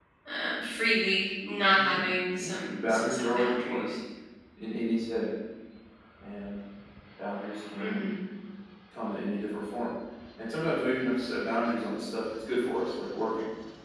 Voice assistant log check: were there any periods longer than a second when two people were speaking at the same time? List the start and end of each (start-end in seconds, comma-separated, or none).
2.4-3.9